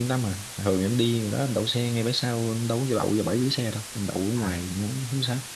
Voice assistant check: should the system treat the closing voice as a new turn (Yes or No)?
No